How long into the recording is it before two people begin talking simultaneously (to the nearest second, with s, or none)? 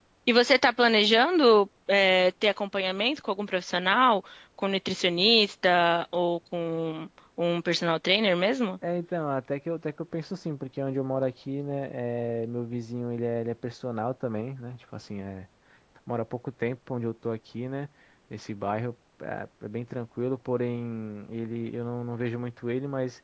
none